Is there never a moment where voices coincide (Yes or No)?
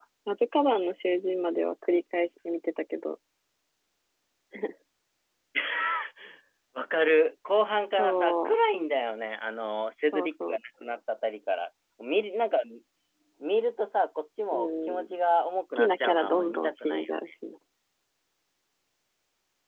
No